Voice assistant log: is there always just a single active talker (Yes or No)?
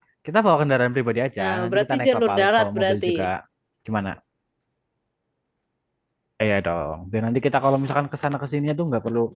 No